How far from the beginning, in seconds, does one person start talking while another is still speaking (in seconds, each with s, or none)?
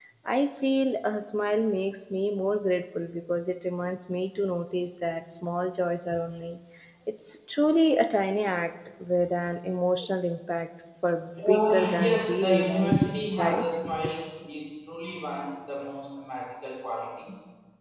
11.4 s